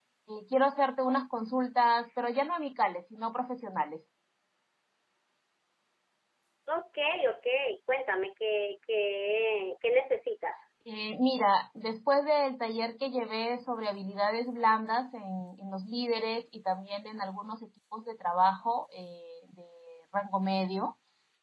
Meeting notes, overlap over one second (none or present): none